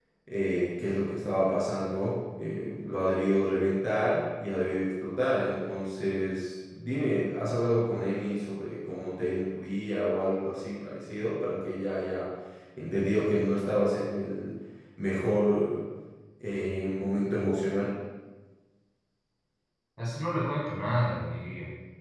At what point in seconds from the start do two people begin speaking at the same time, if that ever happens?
none

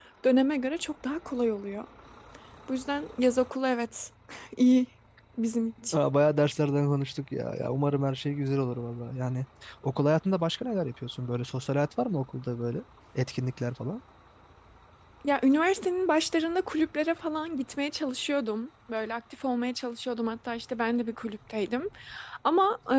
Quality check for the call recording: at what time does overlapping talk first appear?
none

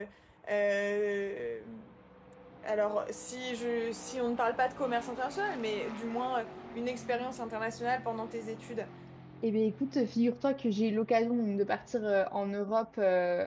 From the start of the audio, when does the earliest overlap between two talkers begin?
none

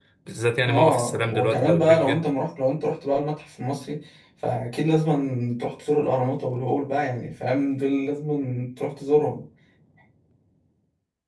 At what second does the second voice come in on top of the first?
0.6 s

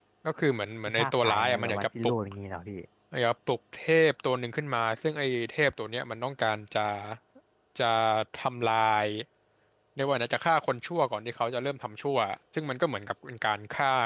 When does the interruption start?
0.9 s

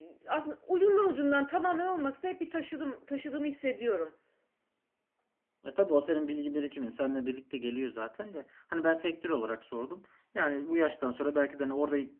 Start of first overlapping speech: none

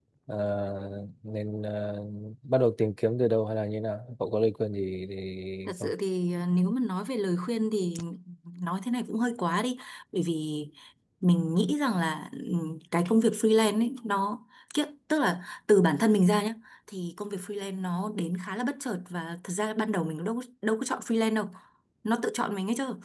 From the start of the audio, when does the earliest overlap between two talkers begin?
none

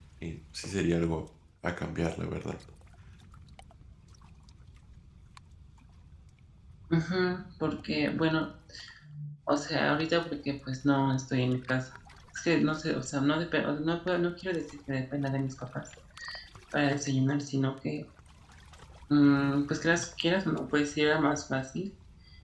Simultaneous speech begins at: none

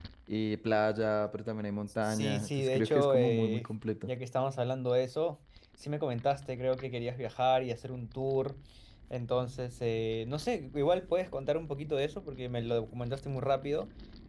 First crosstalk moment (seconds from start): 2.0 s

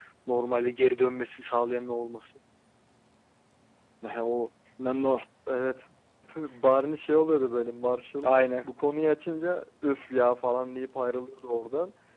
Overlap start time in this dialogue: none

